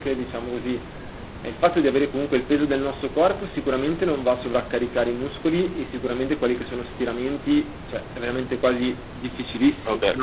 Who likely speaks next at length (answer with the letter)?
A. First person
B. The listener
B